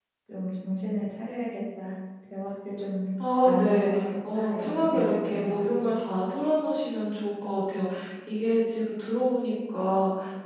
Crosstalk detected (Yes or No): Yes